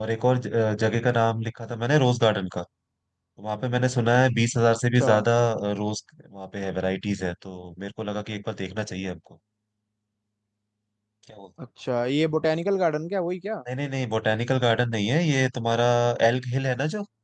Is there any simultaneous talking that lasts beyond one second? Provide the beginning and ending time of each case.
none

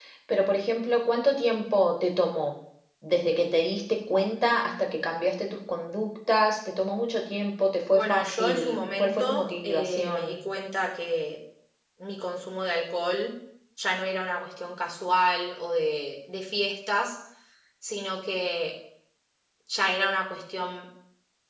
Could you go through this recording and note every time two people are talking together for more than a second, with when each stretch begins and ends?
7.9-10.3

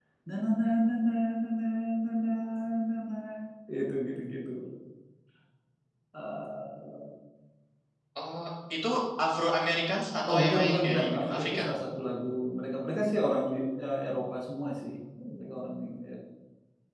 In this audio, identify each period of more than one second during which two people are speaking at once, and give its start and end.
10.3-11.6

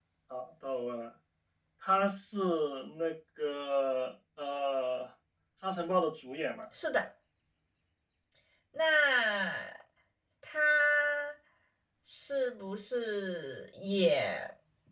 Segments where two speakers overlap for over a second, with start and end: none

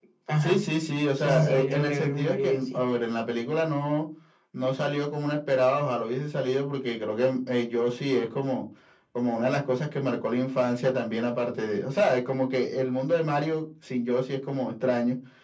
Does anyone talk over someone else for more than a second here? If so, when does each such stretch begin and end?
1.2-2.8

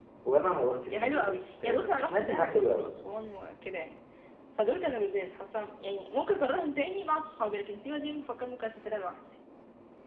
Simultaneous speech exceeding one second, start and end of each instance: 0.9-2.9

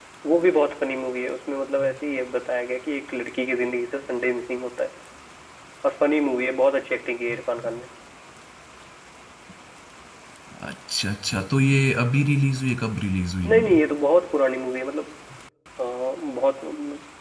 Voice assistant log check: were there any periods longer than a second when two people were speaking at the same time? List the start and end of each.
none

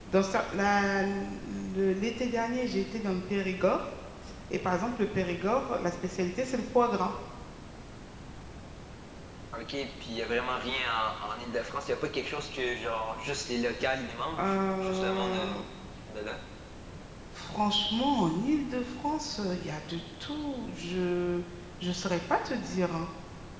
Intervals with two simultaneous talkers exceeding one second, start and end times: 14.4-15.6

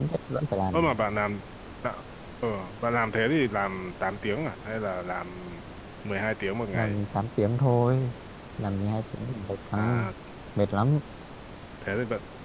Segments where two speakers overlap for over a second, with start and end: none

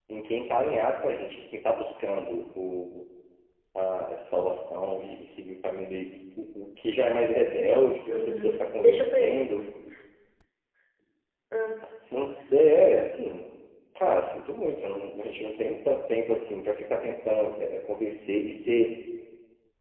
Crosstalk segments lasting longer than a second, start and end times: 8.1-9.4

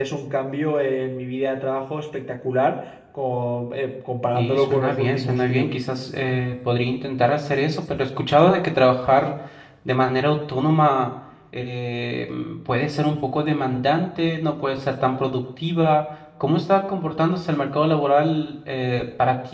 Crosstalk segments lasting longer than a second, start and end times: 4.3-5.7

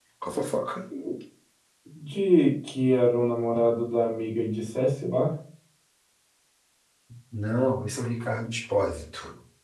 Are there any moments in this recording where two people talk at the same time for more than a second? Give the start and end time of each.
none

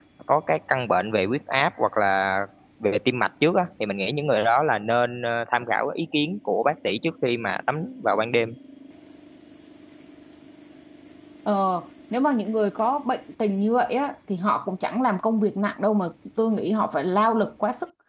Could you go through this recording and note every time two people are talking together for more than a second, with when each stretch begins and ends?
none

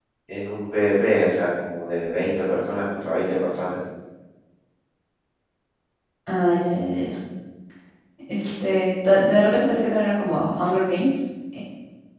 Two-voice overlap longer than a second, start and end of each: none

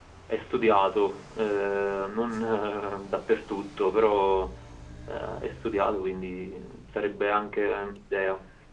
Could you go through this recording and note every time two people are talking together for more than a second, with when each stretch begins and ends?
none

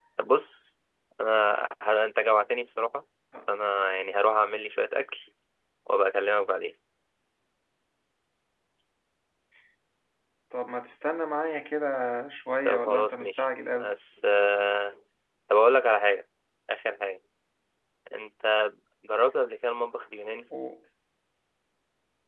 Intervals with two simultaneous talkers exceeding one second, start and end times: 12.7-13.9

